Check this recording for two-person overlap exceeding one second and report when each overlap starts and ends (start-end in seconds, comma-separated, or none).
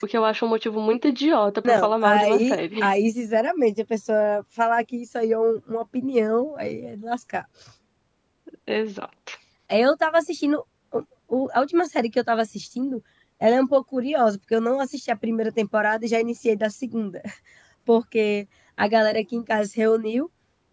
1.6-2.9